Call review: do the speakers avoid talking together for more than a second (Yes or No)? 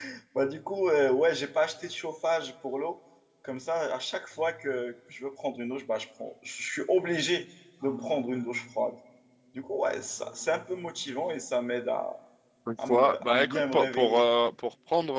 No